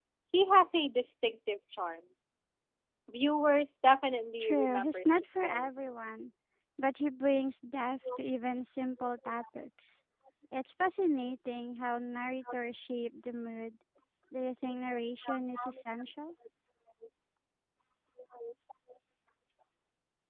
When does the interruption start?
4.4 s

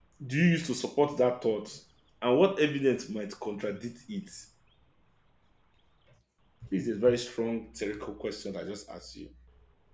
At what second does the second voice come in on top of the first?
none

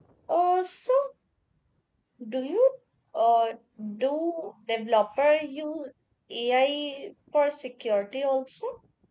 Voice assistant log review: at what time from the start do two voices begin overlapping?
none

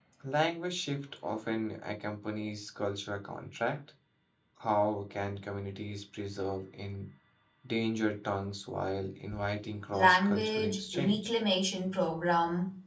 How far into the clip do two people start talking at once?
9.9 s

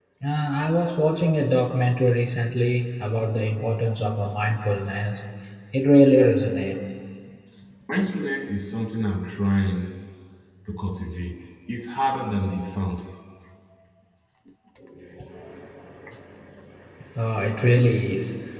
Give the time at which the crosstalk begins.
none

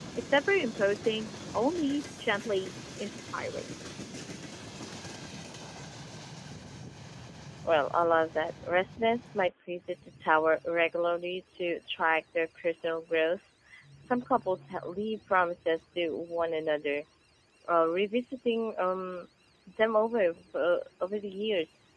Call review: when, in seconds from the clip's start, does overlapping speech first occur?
none

